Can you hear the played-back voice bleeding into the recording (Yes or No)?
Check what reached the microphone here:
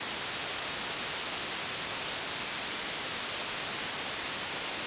No